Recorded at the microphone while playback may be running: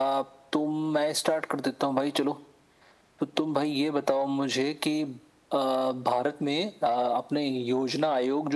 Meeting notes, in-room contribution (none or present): none